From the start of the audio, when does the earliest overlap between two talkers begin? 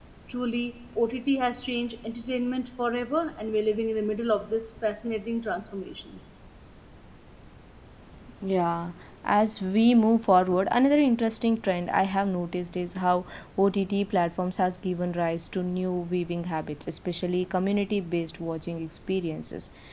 none

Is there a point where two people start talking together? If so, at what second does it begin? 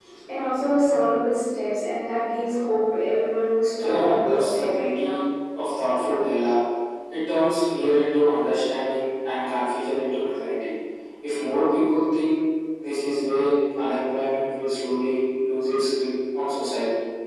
3.8 s

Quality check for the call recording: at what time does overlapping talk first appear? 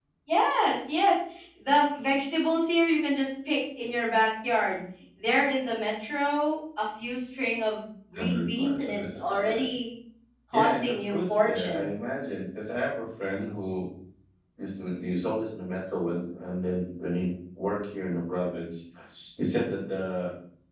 8.2 s

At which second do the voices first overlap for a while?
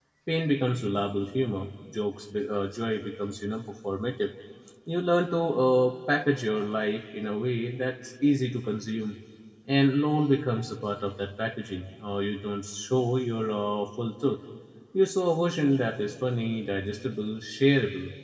none

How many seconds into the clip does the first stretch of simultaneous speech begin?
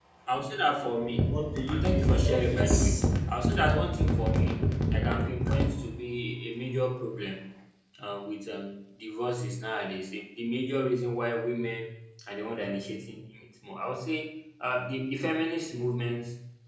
1.7 s

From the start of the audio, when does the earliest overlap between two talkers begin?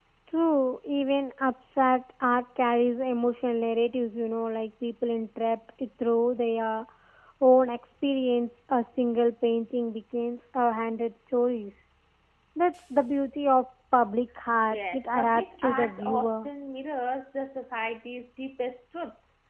14.7 s

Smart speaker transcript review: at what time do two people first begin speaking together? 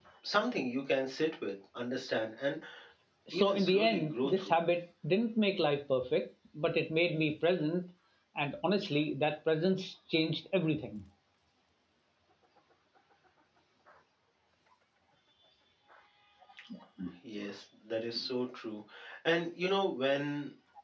3.3 s

